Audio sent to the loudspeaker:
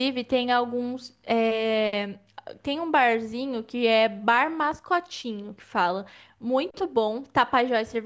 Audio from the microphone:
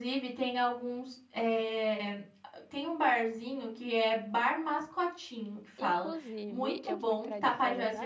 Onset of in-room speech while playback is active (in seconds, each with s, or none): 5.8 s